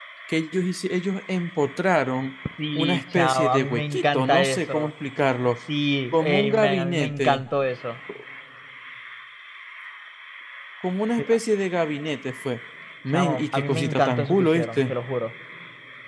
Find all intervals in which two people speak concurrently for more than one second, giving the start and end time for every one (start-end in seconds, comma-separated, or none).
2.8-4.9, 6.1-7.4, 13.1-14.9